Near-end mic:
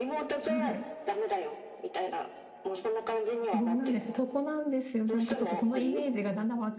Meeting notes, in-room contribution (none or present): present